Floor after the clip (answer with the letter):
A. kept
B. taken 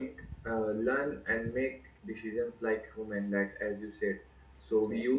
A